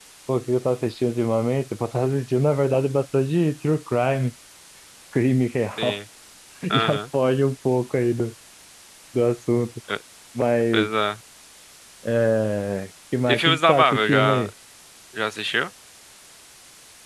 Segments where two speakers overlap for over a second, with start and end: 13.3-14.5

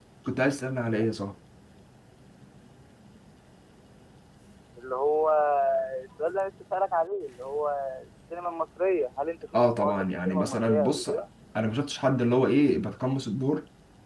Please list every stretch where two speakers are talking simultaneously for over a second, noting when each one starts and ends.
9.6-11.2

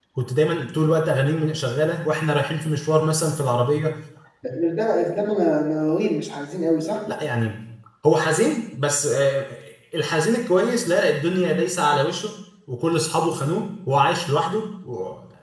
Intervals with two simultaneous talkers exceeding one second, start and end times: none

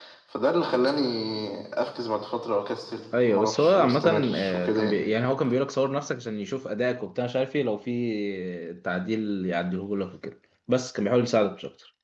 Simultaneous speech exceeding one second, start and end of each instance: 3.2-5.0

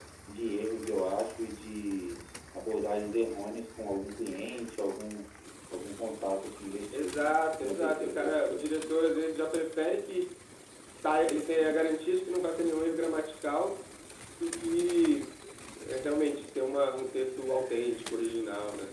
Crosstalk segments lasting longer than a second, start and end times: 6.9-8.7

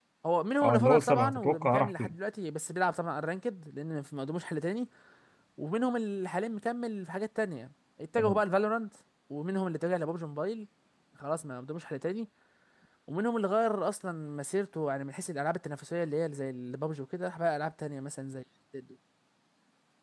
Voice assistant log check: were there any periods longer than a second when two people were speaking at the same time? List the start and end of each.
0.6-2.1

